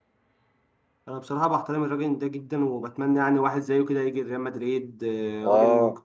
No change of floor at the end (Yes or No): No